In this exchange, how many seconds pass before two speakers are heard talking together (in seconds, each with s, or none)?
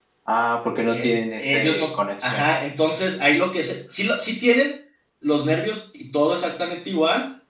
0.9 s